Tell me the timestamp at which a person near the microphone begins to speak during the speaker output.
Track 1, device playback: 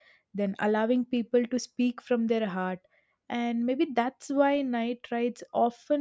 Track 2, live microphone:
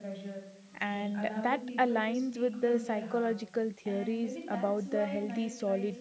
0.8 s

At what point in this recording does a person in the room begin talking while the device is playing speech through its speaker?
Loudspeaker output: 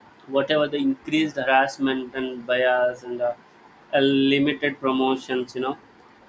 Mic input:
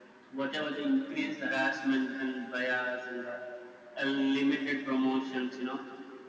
none

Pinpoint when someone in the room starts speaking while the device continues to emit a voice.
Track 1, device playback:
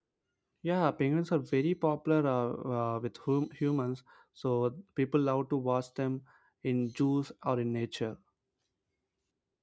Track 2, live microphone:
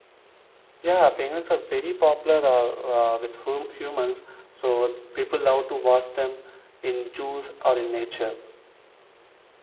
none

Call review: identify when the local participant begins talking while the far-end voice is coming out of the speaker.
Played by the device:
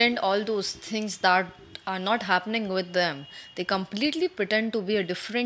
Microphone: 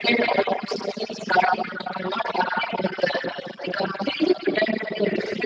none

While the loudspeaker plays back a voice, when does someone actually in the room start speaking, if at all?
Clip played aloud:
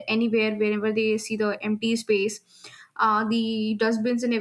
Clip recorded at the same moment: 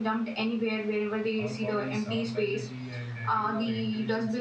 1.4 s

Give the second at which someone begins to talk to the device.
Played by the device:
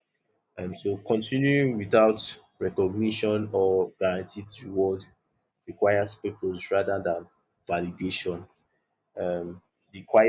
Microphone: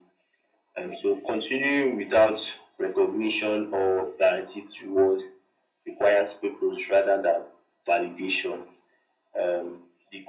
none

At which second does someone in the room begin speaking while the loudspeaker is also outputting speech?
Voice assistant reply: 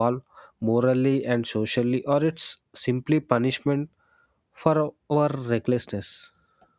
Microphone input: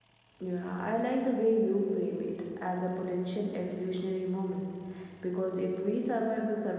0.4 s

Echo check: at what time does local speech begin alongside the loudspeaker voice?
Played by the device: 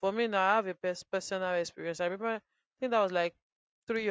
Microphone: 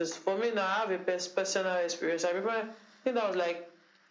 none

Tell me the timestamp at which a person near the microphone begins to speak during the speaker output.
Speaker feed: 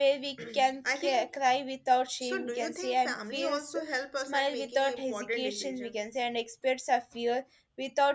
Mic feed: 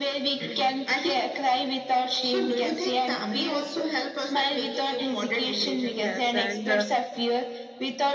5.8 s

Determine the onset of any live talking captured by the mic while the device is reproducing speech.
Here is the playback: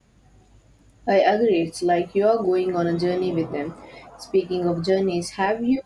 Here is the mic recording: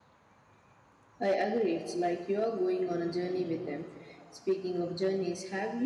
none

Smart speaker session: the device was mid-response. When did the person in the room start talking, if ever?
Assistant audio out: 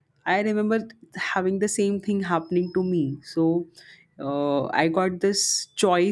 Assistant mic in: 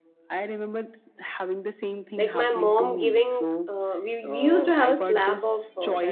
2.2 s

